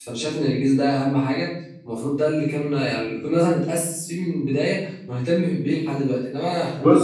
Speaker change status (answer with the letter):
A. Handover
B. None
A